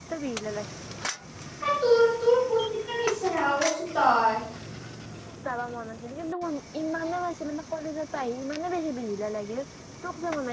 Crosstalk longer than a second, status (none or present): none